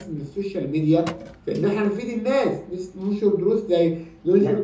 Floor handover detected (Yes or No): No